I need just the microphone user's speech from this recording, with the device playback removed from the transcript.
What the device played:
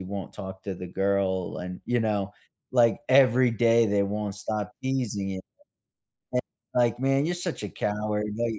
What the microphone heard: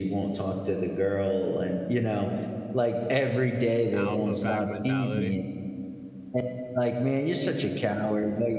Alpha pack mentality.

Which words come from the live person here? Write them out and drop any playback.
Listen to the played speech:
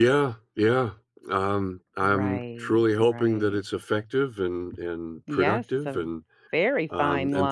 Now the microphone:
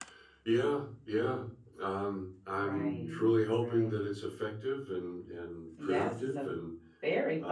Mhm.

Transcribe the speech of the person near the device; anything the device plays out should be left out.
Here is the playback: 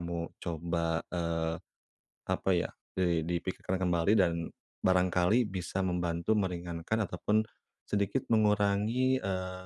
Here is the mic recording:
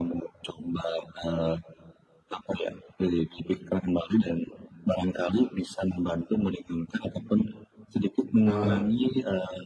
Heeh heeh.

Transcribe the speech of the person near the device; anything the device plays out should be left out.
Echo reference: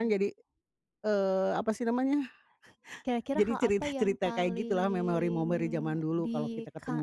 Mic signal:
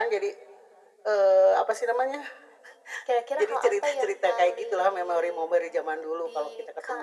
none

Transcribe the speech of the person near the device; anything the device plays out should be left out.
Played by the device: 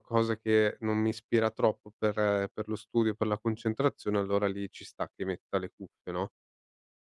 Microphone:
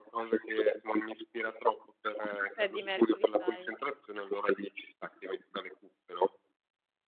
Freddie Mercury style.

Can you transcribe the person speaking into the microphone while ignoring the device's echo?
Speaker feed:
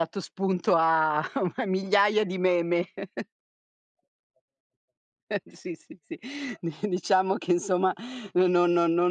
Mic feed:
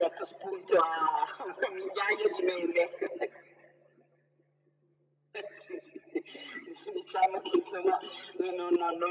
none

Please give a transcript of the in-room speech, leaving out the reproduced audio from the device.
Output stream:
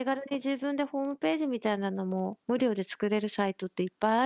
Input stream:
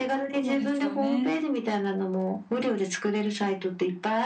そうですよね。

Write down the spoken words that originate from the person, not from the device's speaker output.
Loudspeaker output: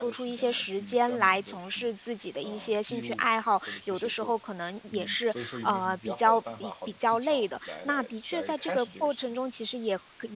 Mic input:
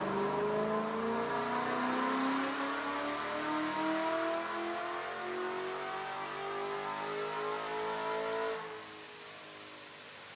none

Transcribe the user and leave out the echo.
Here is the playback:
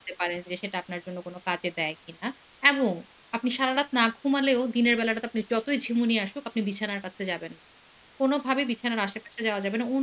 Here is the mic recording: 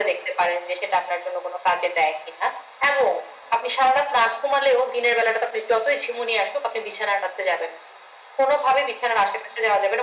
none

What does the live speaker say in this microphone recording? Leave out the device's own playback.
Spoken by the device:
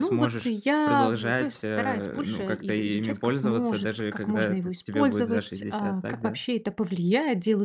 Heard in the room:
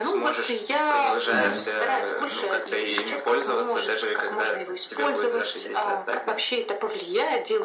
Да.

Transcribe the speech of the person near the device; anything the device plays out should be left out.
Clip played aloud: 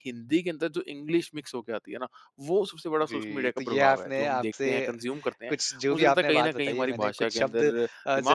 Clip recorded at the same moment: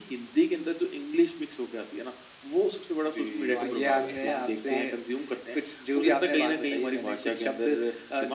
जो आईडीके आपने कहा।

